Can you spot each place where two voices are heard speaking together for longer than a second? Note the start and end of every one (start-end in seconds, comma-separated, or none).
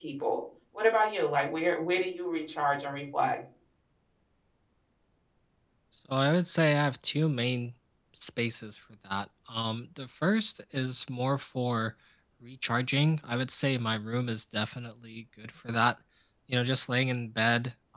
none